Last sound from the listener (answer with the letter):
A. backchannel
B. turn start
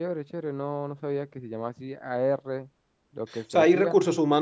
B